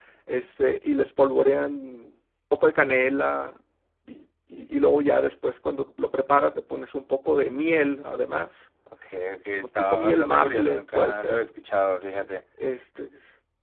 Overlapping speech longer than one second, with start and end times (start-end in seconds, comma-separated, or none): 9.5-11.4